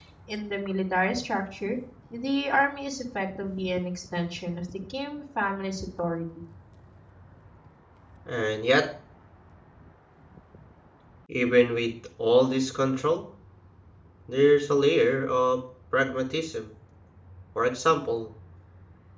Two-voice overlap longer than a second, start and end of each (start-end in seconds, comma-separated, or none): none